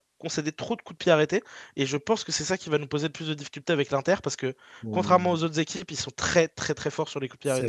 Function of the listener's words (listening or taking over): taking over